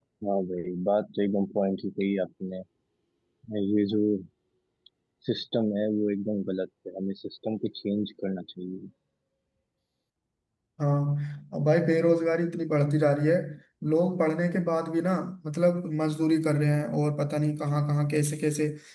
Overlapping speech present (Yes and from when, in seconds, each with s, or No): No